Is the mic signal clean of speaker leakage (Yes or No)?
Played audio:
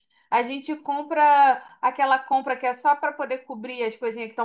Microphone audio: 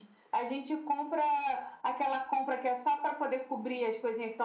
No